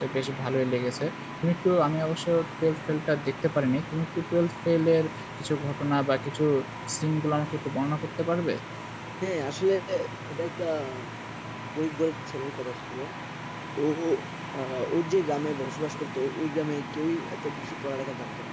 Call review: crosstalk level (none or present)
none